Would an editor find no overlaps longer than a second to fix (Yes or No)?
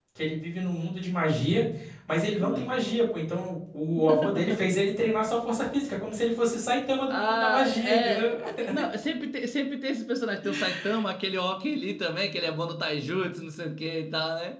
No